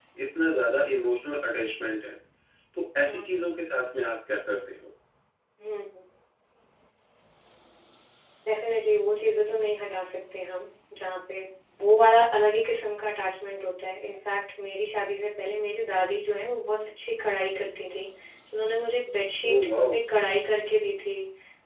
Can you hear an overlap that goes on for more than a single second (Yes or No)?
No